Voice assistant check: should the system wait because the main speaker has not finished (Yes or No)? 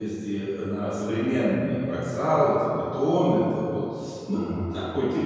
Yes